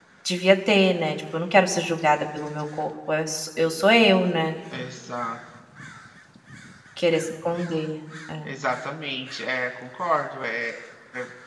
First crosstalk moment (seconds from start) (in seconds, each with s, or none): none